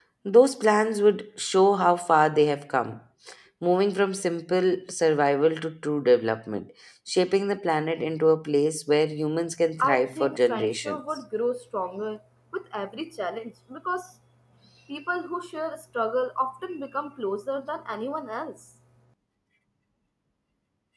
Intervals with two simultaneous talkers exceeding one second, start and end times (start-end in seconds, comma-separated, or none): 9.8-11.0